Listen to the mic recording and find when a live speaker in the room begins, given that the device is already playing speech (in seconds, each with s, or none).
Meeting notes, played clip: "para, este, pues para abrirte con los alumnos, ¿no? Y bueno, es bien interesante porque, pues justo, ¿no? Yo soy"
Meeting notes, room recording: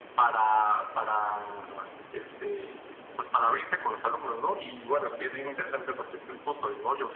none